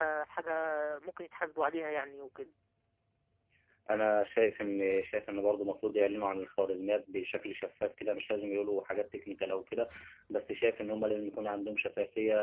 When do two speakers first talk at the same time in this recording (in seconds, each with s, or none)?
none